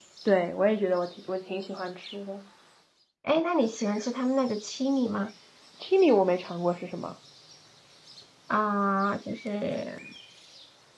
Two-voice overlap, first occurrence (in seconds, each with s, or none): none